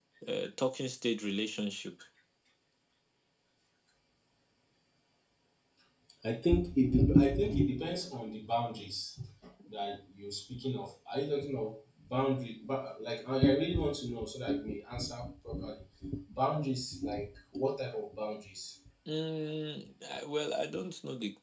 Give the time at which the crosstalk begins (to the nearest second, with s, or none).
none